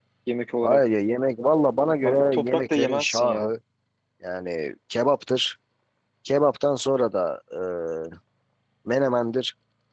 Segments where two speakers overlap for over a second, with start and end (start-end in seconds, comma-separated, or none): 2.0-3.5